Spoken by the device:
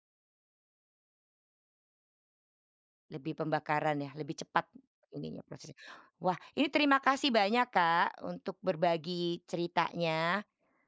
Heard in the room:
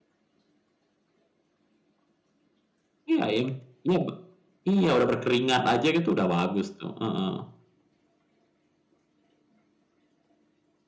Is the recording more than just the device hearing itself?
Yes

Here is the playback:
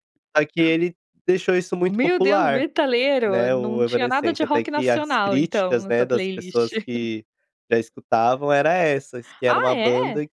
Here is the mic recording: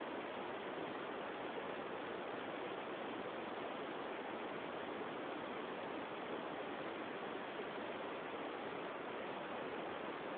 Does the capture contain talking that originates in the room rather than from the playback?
No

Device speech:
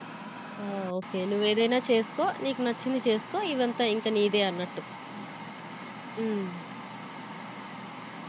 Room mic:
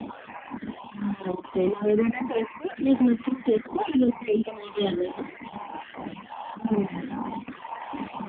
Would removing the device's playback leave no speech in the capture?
Yes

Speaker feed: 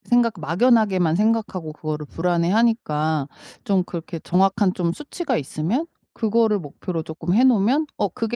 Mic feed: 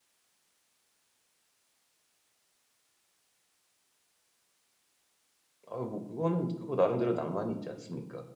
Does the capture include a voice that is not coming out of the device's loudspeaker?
Yes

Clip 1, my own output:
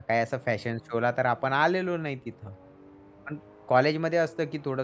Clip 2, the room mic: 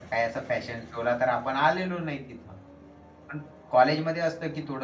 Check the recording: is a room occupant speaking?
No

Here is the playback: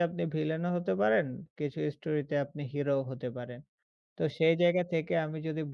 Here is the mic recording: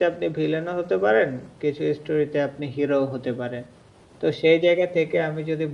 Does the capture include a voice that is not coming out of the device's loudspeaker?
No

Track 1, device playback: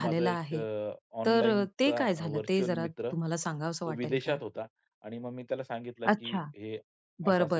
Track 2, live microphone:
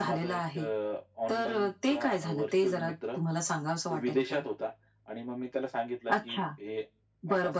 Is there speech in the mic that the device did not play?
No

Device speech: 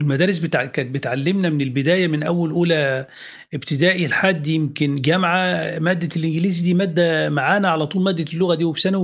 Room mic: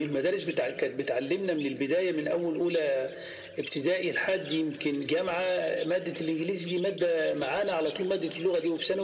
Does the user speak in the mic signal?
No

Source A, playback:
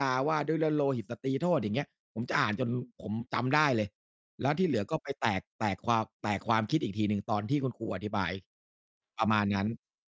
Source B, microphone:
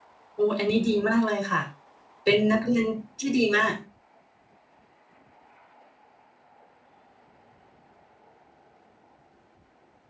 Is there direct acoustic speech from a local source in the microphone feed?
Yes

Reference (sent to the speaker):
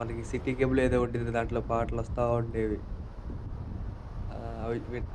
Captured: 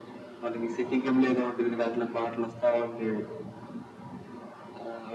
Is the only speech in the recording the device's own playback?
Yes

